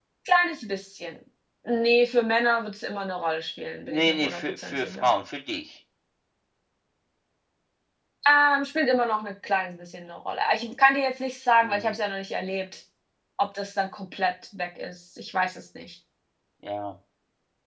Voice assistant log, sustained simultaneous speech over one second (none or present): present